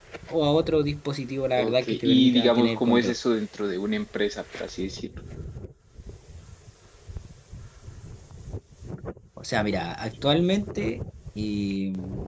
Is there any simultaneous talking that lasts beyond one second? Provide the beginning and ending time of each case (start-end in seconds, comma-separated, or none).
1.6-3.1